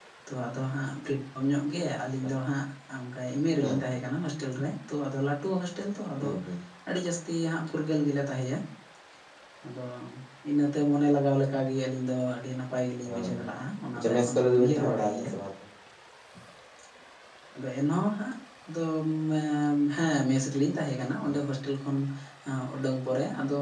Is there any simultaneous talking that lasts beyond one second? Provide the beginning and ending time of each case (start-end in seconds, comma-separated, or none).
14.0-15.3